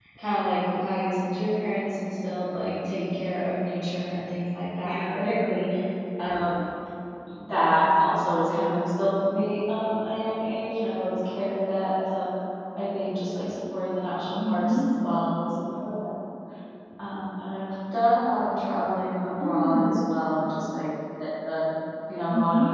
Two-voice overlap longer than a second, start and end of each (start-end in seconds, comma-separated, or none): none